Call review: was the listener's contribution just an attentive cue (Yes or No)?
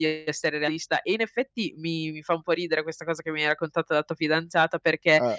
Yes